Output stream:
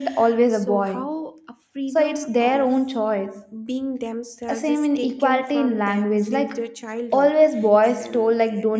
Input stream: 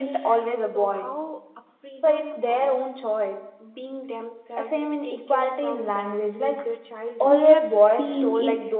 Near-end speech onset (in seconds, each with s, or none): 7.2 s